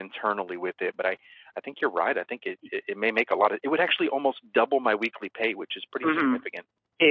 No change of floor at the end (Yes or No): No